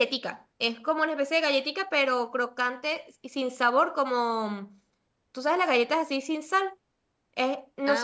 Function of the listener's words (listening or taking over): listening